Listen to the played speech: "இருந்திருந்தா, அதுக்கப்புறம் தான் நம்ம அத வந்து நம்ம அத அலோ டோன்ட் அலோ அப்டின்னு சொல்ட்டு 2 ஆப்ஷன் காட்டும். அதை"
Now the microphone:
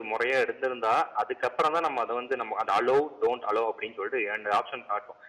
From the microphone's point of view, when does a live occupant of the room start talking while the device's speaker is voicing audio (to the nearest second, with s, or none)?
none